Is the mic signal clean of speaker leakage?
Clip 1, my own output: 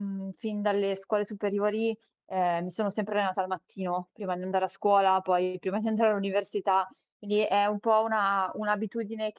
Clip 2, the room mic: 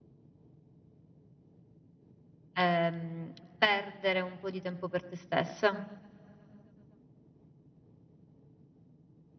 Yes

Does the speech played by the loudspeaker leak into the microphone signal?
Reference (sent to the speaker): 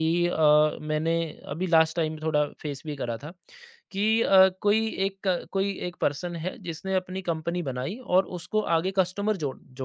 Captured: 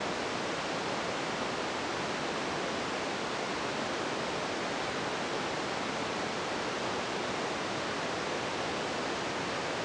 No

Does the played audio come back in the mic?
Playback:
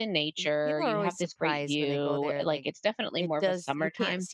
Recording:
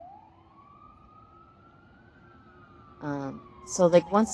No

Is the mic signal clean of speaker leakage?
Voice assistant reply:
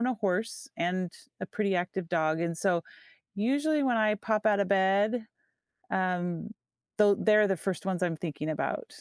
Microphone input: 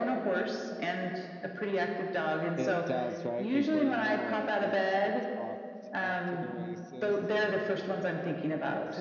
No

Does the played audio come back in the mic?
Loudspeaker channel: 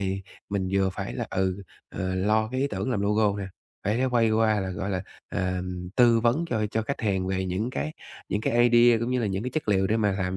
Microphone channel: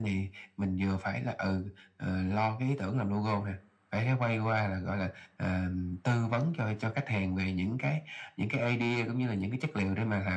Yes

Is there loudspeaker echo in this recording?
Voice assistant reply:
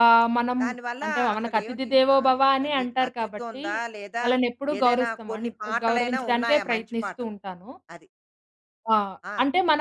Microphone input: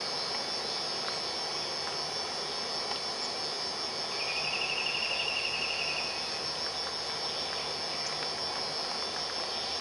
No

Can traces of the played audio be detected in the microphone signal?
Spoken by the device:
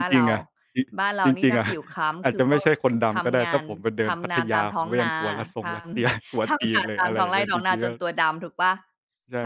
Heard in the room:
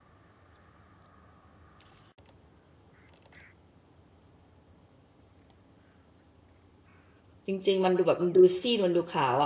No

